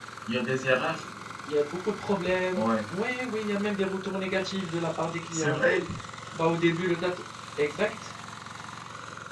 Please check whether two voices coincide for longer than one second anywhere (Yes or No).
No